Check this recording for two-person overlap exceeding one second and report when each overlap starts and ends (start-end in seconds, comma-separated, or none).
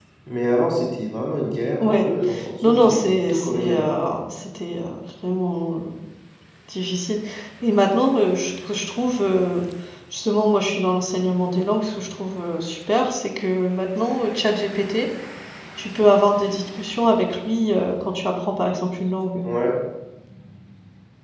2.6-4.0